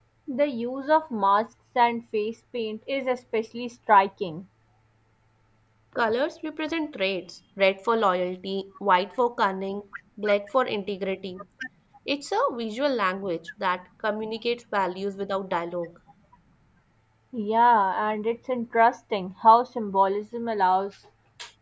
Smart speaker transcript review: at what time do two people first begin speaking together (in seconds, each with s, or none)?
none